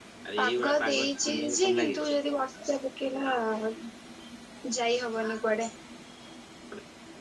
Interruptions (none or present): present